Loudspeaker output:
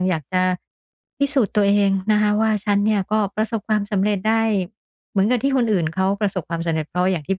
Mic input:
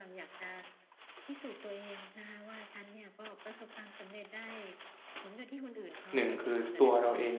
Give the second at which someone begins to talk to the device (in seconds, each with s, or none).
6.2 s